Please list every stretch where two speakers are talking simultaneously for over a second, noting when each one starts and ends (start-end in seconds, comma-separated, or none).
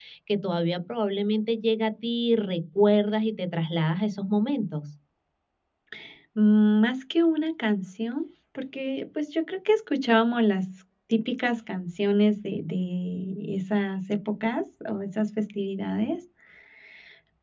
none